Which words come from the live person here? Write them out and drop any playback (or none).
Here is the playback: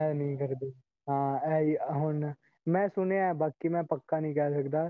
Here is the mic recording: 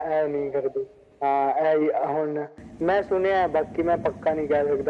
none